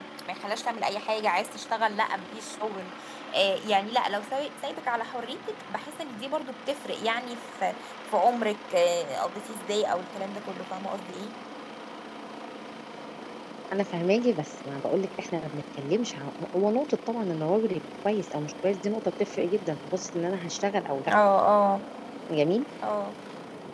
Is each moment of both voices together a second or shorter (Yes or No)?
Yes